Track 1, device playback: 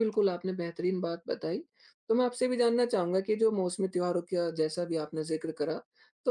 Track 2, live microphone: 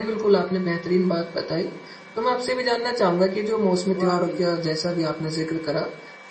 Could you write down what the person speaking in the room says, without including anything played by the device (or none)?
वाक़ई,